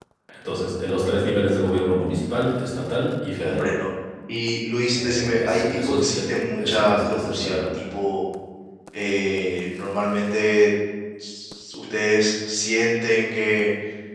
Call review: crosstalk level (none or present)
present